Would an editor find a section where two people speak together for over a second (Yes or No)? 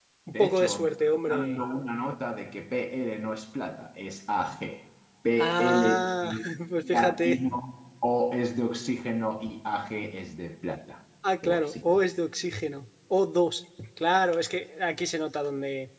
Yes